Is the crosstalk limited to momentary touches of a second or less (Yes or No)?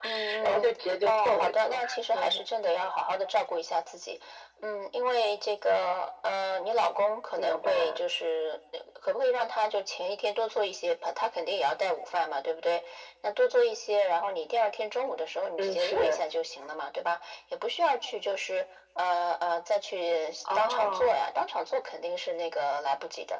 No